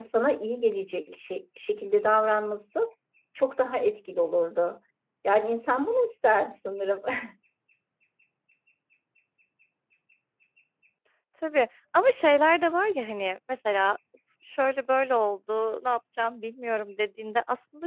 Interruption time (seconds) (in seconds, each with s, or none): none